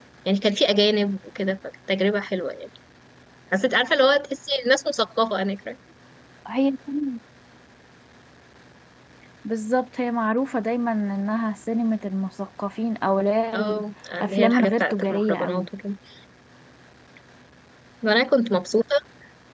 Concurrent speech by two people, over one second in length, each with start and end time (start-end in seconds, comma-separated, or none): 14.2-15.7